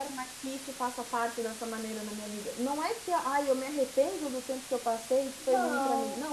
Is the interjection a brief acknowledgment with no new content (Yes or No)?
Yes